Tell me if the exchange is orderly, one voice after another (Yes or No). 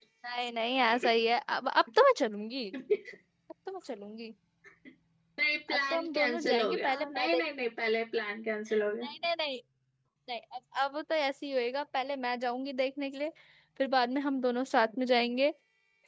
No